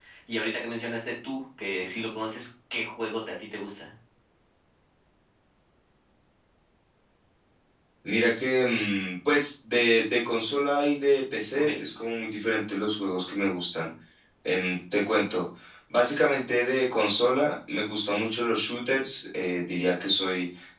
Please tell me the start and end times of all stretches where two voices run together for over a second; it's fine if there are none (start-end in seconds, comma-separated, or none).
none